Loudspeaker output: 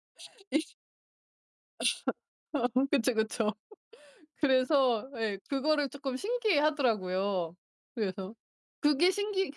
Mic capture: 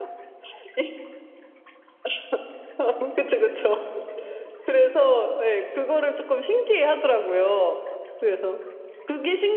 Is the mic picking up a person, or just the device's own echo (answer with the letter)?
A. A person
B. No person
B